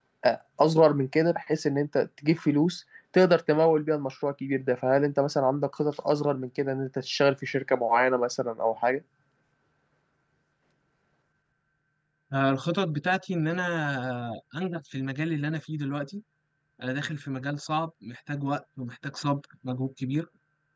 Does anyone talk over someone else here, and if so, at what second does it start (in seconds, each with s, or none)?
none